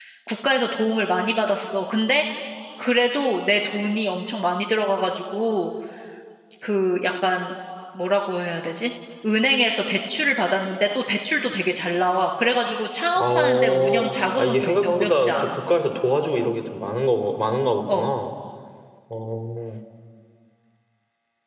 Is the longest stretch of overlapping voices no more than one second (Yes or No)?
No